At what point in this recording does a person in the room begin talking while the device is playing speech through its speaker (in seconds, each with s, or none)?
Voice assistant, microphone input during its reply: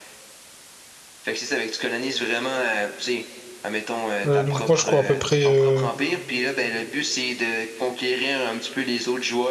4.3 s